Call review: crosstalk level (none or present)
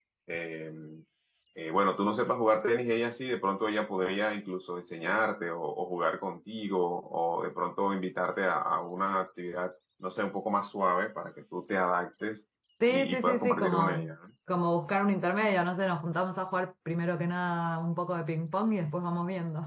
present